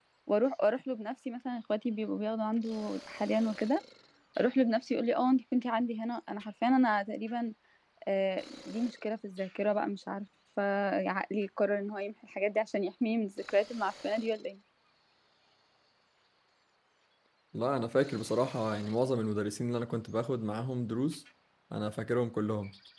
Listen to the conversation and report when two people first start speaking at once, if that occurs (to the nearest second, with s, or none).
none